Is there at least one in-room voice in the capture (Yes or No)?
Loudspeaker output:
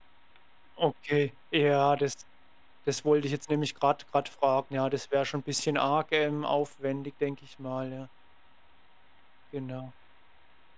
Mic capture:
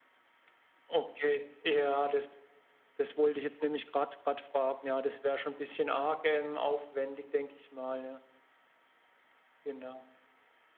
No